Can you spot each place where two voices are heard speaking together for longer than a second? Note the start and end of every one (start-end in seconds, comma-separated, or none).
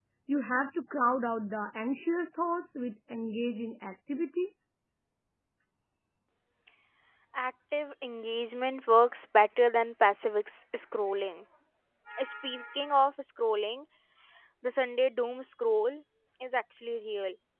none